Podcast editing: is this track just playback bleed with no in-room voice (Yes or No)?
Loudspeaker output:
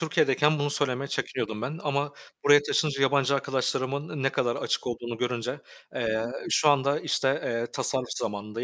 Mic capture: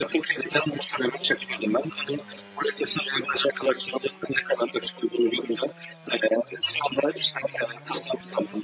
Yes